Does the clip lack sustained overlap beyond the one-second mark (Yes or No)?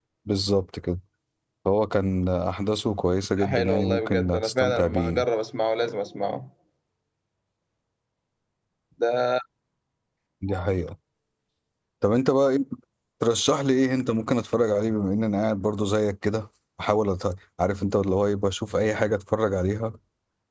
No